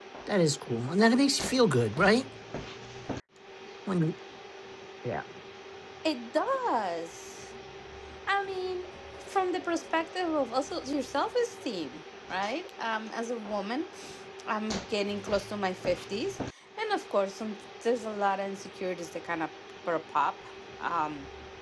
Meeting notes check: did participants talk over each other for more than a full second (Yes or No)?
No